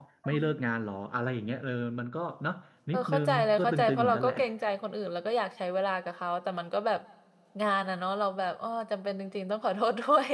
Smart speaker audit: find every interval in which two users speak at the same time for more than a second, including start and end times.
2.9-4.3

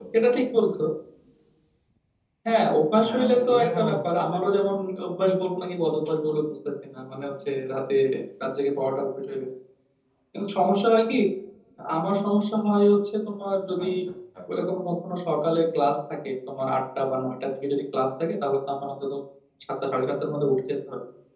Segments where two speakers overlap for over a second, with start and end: 3.0-4.6

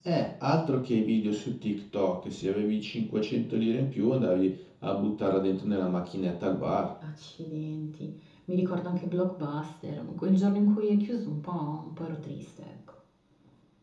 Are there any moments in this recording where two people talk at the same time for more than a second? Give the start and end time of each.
none

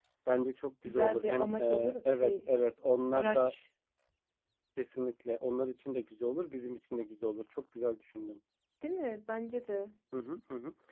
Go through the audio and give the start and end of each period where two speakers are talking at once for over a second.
0.8-2.3

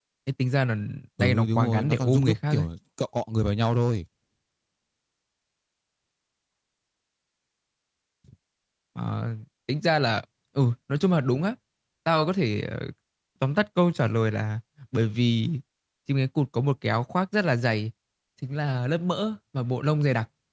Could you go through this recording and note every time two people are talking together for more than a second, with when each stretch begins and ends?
1.2-2.6

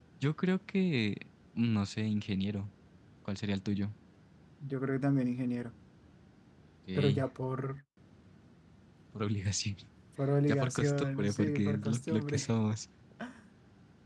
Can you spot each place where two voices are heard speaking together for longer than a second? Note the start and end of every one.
10.5-12.5

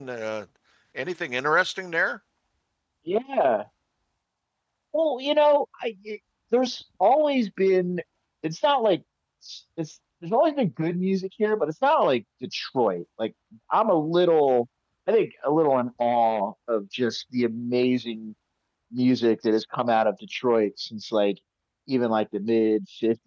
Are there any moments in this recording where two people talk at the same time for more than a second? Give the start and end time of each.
none

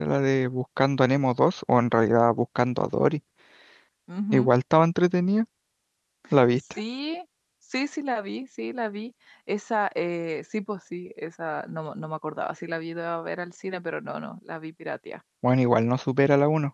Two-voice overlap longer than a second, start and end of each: none

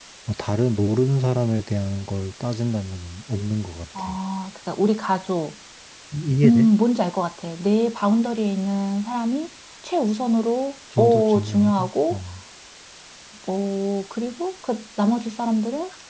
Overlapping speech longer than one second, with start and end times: 11.0-12.2

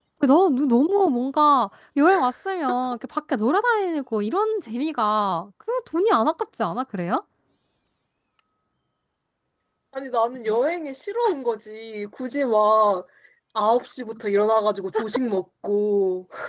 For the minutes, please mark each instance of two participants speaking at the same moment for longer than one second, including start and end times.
none

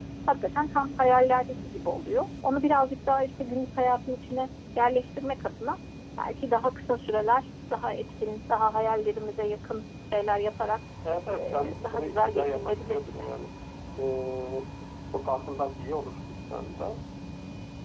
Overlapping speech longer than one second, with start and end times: 11.4-13.0

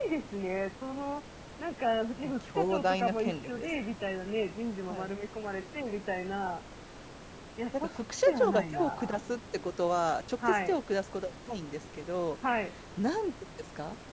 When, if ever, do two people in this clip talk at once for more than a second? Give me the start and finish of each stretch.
2.2-3.7, 7.8-9.2

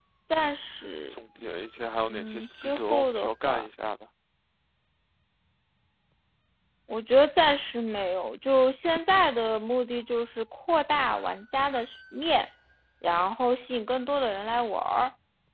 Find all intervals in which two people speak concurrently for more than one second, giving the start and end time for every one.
2.1-3.7

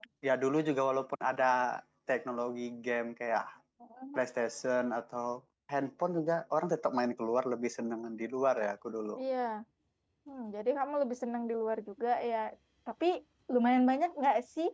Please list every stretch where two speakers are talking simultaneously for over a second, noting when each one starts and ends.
none

